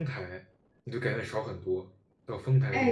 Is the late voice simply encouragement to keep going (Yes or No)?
No